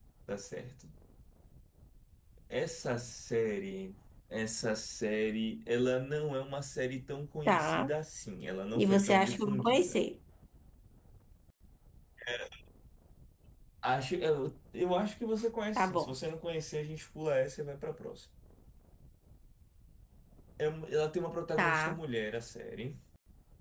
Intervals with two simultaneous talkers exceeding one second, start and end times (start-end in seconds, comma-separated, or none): 8.8-10.0